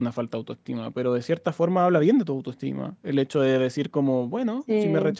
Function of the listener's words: listening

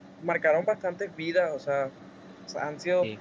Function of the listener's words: listening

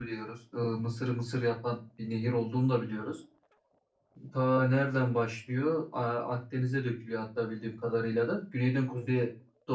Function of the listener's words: listening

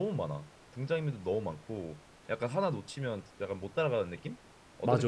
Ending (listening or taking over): taking over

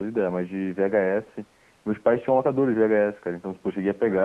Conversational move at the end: listening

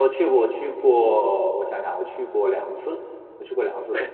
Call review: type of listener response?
taking over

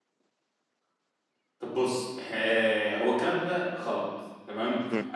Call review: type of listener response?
listening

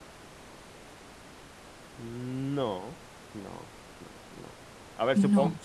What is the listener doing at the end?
listening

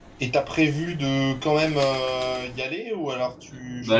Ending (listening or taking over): taking over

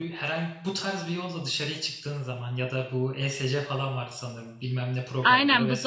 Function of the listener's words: taking over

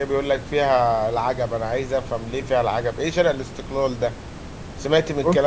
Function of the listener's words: listening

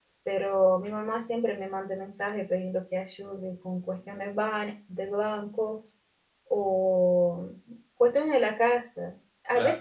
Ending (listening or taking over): listening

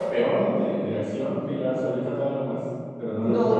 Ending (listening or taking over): taking over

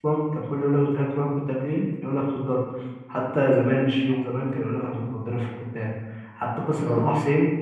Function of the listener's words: listening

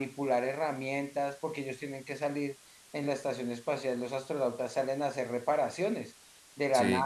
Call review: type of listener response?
listening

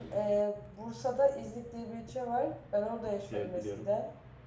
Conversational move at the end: listening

